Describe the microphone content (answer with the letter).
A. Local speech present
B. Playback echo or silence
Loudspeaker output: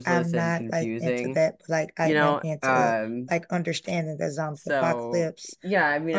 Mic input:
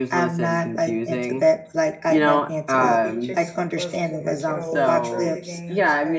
A